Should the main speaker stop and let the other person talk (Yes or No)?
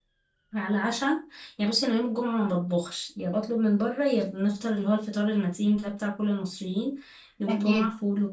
No